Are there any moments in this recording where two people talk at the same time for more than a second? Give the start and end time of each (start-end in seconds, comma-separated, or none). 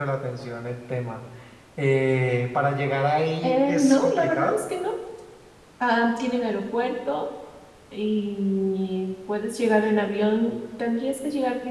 3.4-4.6